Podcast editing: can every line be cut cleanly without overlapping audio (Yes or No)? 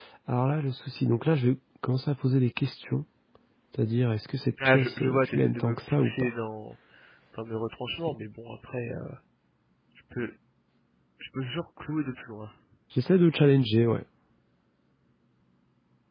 No